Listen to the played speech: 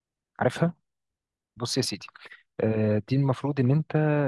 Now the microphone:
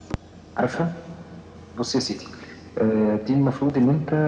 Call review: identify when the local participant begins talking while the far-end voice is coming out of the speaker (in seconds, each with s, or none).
none